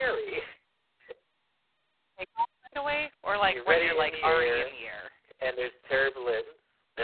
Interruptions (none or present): present